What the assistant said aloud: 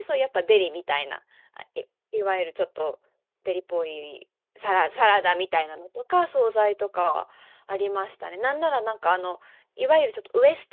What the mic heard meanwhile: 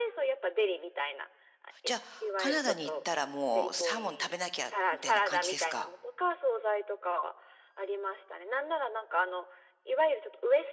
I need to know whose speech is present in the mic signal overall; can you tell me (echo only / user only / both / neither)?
both